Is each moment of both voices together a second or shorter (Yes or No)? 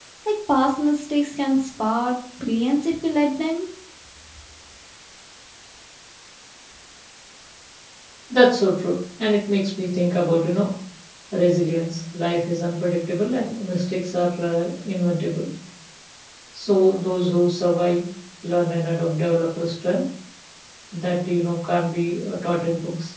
Yes